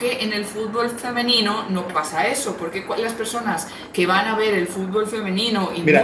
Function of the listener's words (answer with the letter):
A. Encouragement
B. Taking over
B